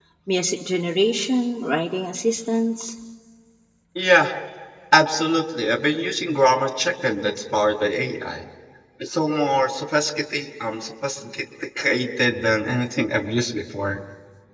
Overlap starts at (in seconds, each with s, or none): none